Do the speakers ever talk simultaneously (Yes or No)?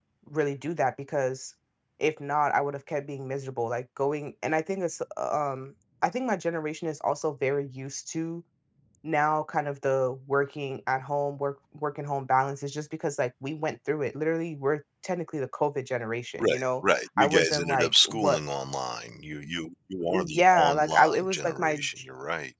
Yes